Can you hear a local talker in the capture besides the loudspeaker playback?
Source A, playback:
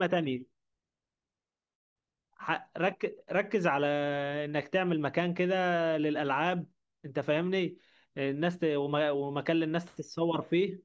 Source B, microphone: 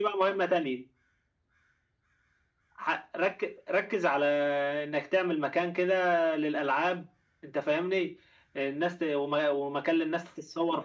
No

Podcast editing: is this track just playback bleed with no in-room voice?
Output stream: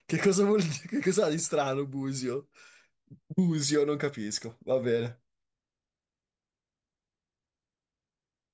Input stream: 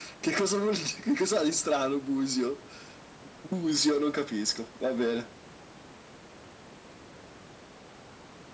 Yes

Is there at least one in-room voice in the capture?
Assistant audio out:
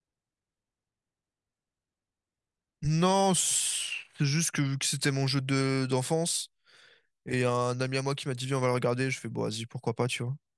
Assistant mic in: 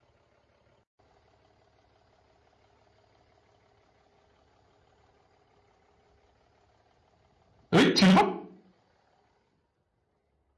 Yes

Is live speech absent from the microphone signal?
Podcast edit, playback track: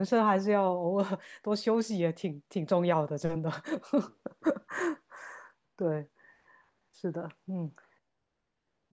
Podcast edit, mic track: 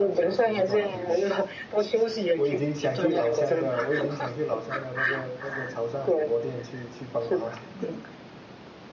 No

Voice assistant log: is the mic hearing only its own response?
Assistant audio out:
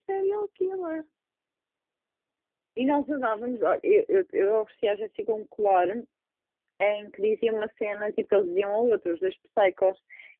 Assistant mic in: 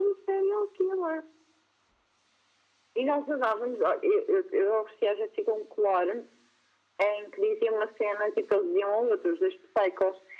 Yes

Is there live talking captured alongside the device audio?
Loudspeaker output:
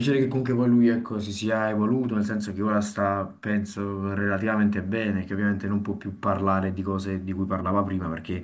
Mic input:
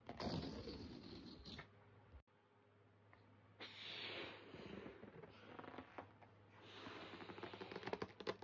No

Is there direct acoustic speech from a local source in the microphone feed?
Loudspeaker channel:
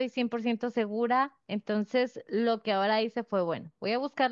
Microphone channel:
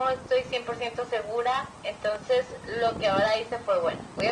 No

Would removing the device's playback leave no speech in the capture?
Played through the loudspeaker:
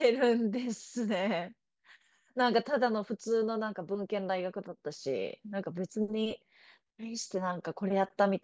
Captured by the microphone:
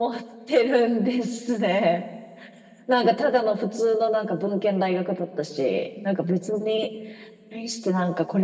Yes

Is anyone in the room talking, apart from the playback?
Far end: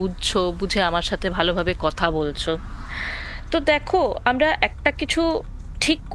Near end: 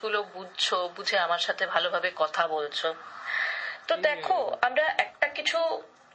Yes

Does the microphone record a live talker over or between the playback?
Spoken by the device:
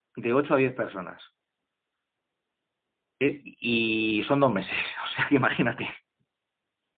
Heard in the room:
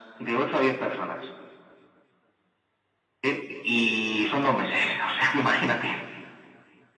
No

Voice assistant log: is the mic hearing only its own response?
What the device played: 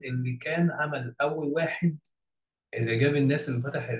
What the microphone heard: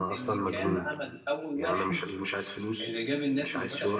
No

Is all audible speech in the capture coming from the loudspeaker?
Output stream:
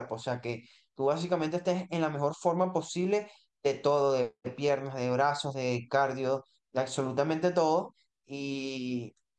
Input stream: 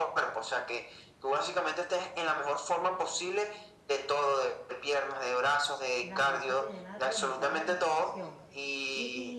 No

